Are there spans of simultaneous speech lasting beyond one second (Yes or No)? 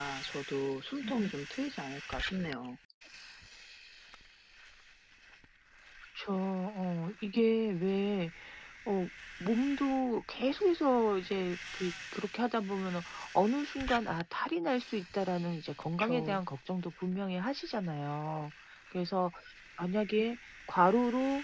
No